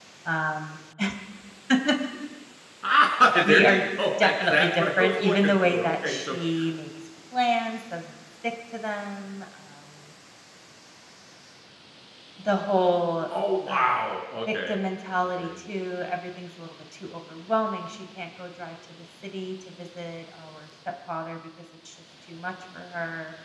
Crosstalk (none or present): present